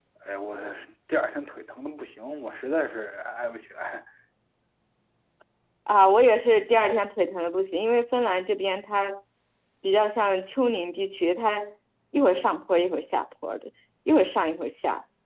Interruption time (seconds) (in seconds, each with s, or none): none